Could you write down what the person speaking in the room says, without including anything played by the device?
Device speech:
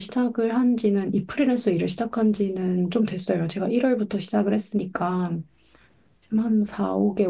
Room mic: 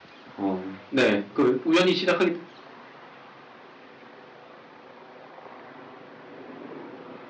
어, 네. 그 우연히 시작하게 된-

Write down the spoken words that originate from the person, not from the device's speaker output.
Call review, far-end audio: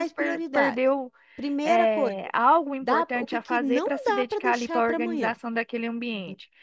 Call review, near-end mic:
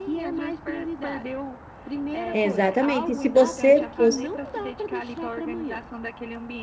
exatamente. E se você fosse,

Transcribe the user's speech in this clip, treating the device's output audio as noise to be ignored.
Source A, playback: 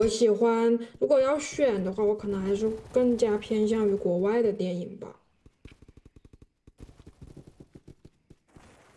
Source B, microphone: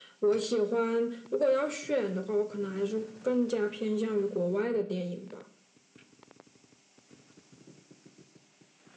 none

